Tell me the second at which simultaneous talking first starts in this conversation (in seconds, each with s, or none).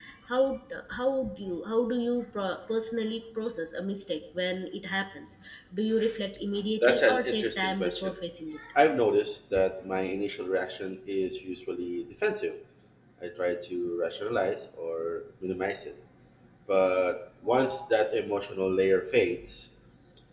6.8 s